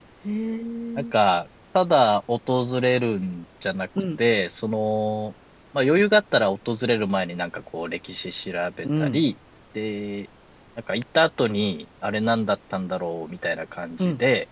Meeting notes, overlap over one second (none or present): none